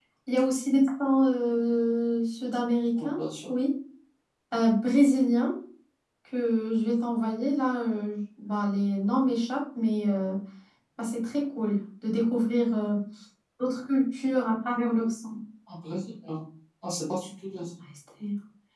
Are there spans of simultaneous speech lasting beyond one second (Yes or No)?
No